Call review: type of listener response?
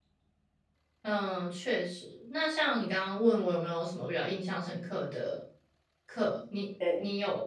listening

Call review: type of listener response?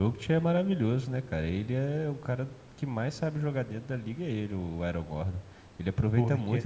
listening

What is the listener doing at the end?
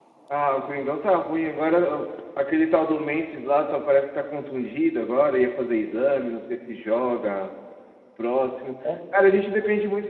listening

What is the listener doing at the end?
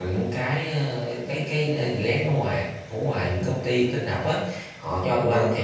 listening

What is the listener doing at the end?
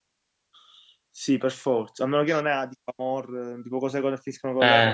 taking over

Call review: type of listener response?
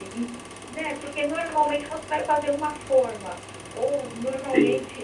listening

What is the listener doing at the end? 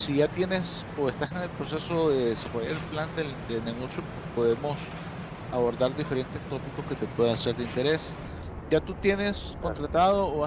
listening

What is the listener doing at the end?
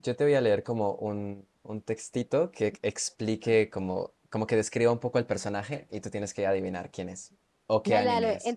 taking over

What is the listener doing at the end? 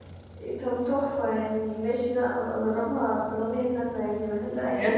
taking over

